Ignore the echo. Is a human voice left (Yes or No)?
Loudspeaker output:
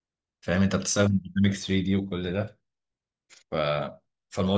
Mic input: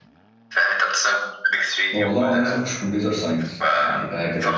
Yes